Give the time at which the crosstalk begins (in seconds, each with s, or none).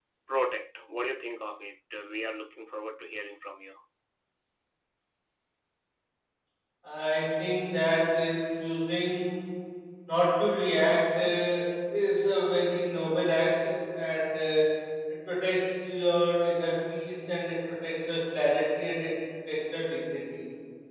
none